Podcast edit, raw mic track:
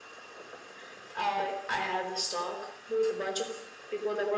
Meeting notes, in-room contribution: none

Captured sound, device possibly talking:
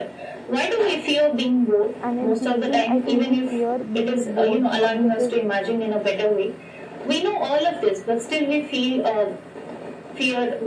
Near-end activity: present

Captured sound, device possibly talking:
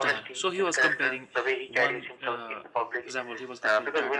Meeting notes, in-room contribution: present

